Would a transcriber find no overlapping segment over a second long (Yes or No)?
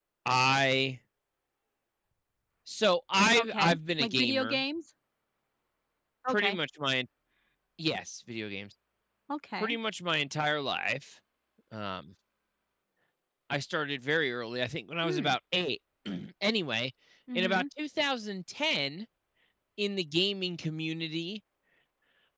No